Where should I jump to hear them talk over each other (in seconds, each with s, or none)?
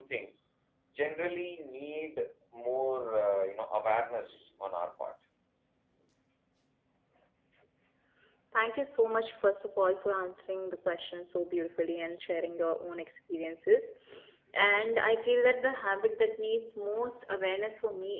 none